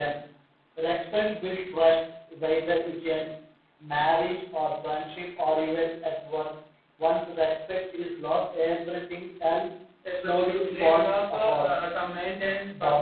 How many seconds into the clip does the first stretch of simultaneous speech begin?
10.1 s

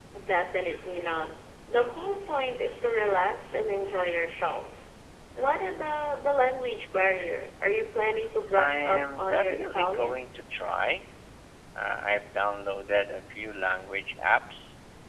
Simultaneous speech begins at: 8.6 s

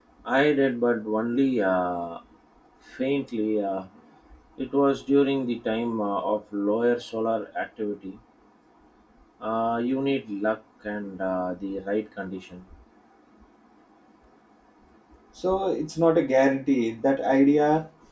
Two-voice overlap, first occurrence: none

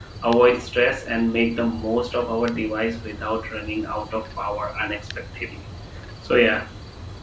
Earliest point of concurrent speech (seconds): none

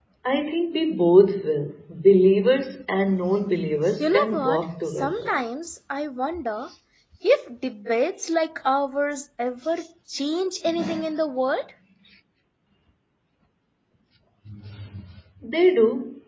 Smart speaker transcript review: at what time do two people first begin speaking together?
4.0 s

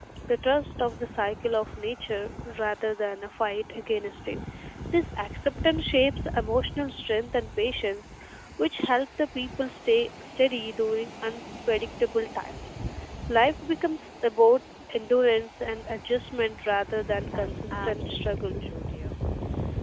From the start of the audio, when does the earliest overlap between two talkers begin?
17.3 s

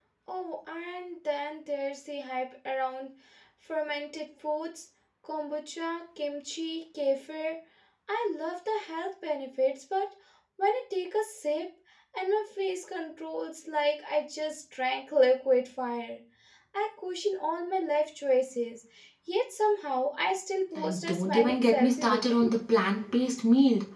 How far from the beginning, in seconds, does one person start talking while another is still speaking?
20.8 s

